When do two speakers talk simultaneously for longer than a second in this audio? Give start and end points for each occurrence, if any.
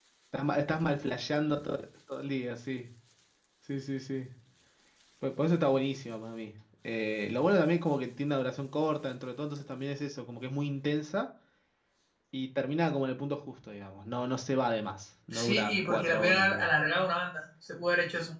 15.3-16.7

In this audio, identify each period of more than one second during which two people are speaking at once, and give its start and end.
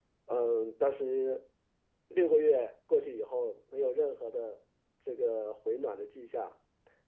none

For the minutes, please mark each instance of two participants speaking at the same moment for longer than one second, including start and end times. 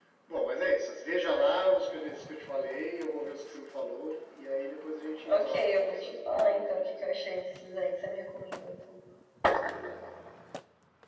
5.3-7.1

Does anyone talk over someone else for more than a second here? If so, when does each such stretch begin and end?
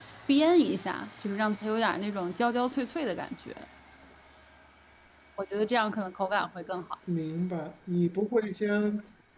none

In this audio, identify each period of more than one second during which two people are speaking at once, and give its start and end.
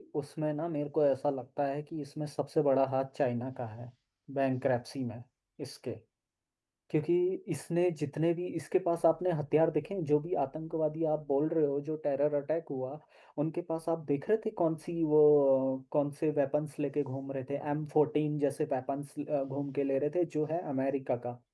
none

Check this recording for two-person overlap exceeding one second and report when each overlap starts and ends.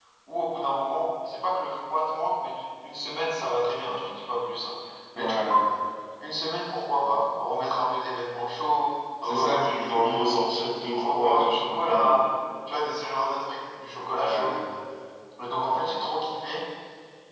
10.9-12.2

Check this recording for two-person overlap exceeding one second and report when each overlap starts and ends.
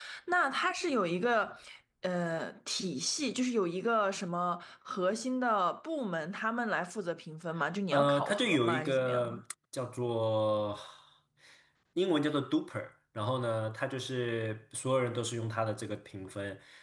7.9-9.4

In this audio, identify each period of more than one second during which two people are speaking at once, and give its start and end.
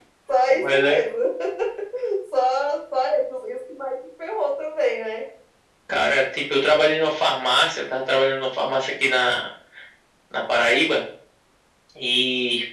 none

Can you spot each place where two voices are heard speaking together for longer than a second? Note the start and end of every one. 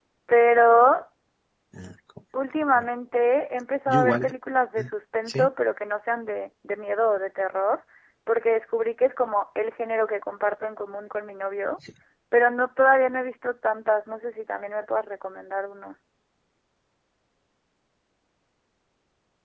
none

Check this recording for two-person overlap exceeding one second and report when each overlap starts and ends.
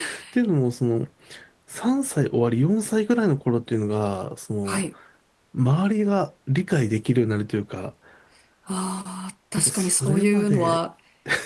9.6-10.8

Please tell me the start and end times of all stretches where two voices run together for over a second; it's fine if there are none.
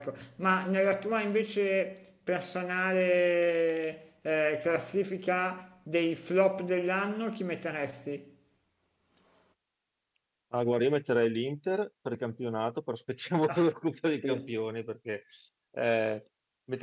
none

